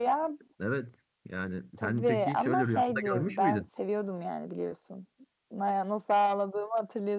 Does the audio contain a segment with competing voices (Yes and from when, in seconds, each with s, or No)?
Yes, from 1.8 s